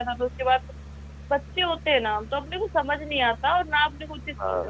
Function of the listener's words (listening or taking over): listening